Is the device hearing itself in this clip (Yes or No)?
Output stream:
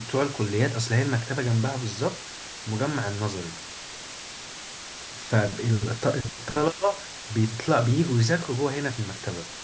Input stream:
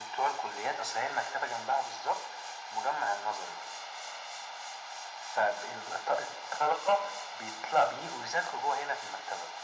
Yes